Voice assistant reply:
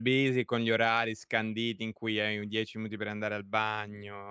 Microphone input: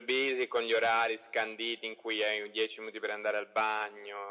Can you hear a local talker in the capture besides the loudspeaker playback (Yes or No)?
No